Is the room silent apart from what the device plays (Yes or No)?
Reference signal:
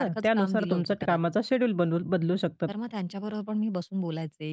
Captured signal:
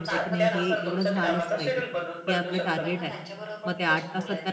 No